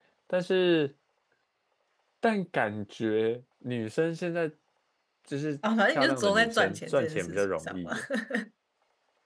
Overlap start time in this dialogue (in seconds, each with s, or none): 5.9 s